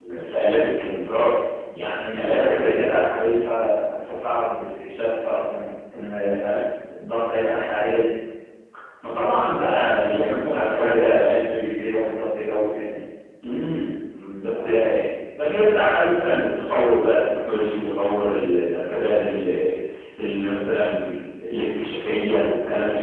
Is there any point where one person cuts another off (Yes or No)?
Yes